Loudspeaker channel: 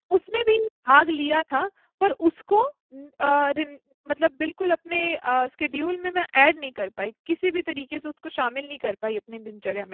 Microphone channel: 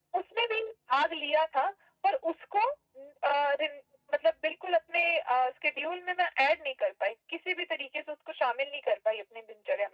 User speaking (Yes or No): No